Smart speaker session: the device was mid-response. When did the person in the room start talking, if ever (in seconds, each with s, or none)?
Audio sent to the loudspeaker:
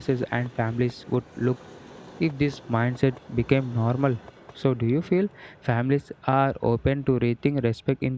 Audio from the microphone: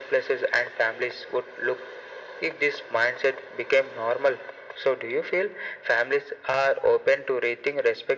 none